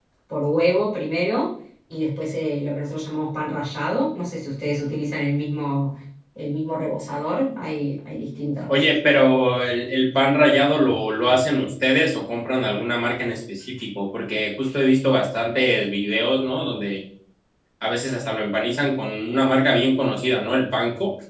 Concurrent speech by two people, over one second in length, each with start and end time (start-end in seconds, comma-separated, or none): none